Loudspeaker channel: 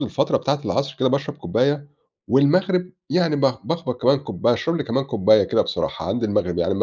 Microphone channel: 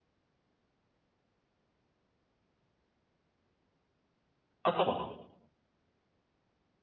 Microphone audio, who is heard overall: user only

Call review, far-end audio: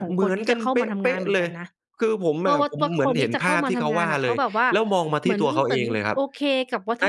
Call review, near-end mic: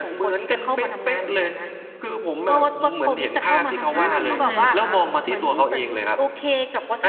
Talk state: both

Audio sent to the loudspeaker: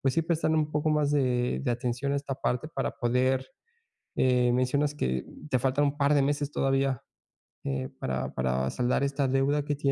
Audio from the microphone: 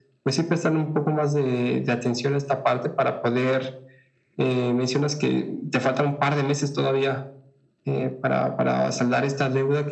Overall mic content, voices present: echo only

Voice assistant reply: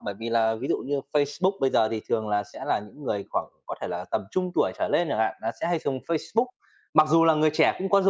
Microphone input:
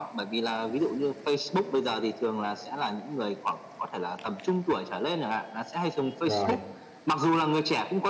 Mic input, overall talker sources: both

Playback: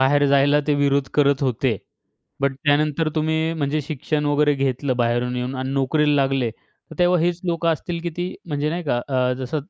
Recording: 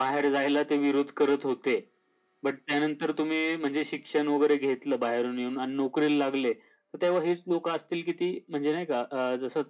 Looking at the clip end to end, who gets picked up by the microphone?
echo only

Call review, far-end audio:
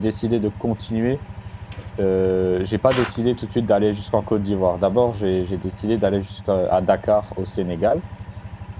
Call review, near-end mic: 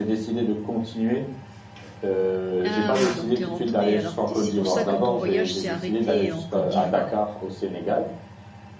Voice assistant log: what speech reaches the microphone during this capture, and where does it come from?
both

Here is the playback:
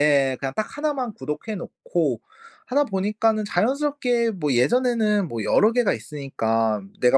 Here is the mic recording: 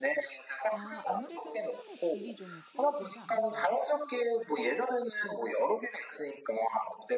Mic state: both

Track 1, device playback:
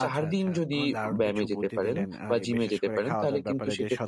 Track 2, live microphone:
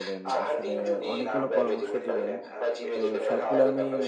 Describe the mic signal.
both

